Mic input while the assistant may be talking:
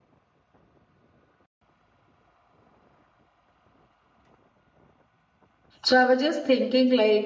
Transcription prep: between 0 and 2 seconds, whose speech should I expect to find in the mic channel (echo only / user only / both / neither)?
neither